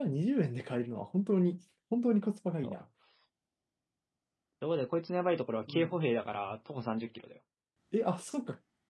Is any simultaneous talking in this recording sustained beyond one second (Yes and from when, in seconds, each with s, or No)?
No